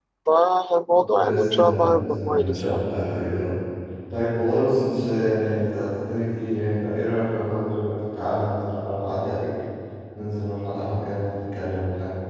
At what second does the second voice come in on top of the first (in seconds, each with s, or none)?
1.1 s